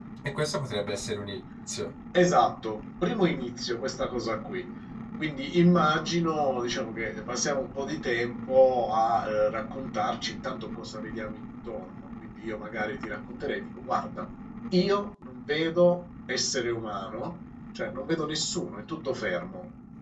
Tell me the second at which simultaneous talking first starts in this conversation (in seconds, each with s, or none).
none